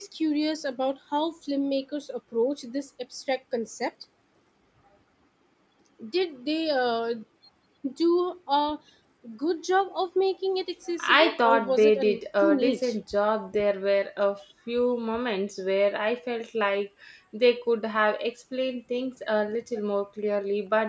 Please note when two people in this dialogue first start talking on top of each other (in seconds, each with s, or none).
11.0 s